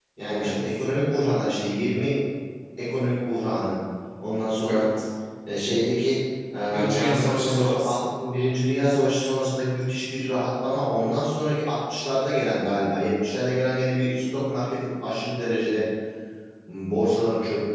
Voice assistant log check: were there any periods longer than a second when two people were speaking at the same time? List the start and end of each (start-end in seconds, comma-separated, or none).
6.7-8.0